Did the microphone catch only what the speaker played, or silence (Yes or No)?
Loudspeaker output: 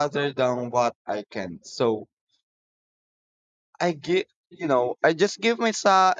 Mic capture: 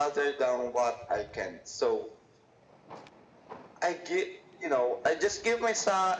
Yes